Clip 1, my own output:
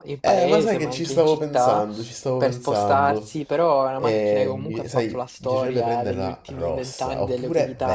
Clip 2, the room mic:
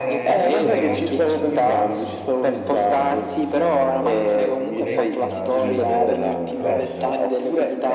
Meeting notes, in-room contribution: present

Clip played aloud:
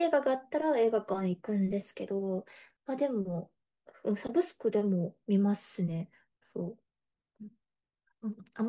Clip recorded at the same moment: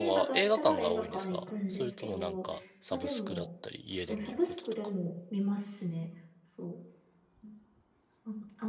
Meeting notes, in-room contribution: present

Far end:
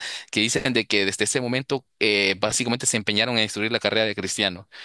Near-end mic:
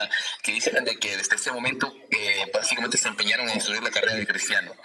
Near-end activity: none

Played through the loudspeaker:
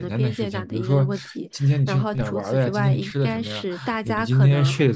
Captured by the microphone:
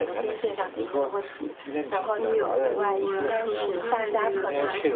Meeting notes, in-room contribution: present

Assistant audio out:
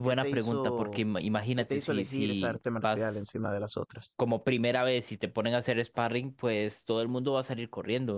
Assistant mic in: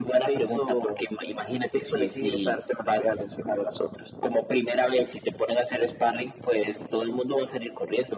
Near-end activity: none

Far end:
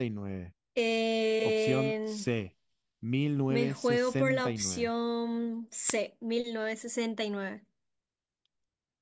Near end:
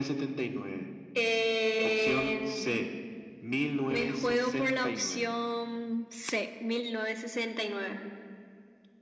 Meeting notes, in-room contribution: none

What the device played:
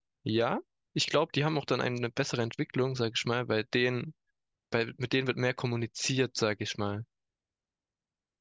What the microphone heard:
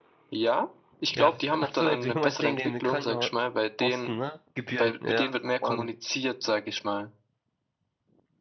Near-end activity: present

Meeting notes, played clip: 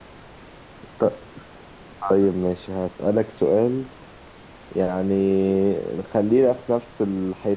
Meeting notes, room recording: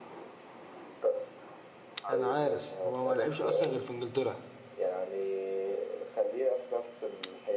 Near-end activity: present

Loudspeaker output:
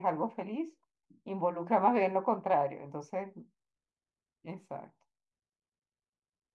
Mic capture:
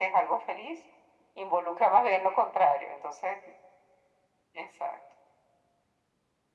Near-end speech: none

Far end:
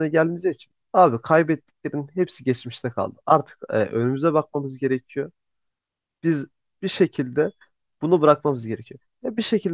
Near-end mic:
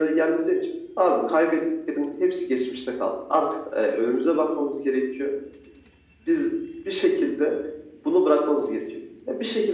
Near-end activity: none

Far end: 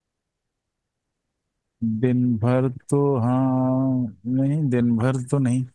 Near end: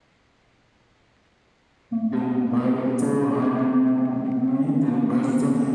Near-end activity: none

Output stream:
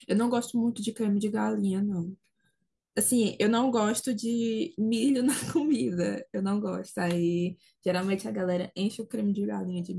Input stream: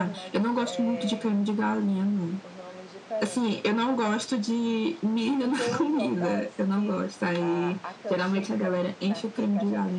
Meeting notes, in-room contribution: present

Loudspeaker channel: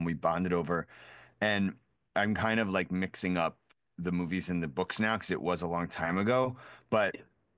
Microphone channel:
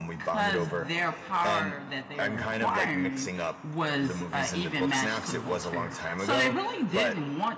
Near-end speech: present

